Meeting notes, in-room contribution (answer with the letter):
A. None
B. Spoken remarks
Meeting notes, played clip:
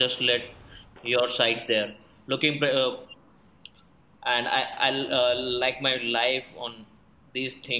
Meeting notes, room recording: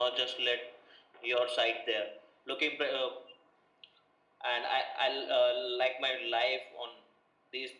A